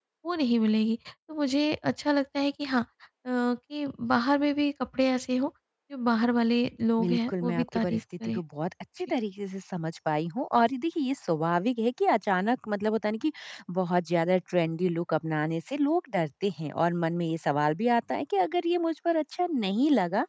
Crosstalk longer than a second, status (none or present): present